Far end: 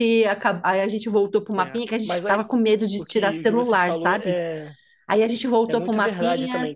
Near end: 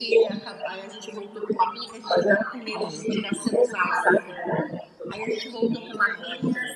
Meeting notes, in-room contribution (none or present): present